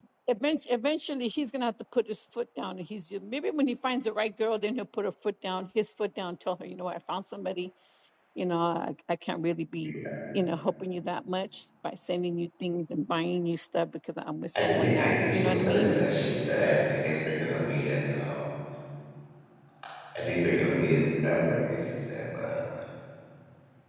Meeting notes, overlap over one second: present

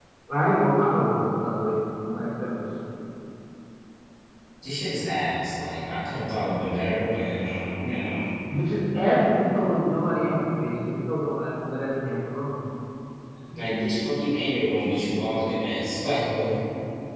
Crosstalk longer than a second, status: none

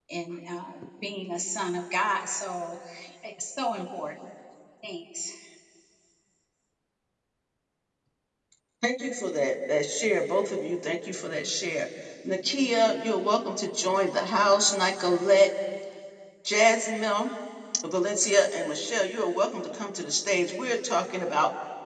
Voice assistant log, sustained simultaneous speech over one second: none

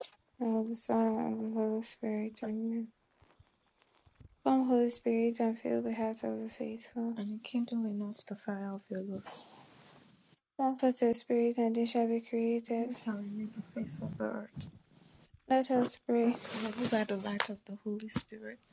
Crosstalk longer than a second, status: none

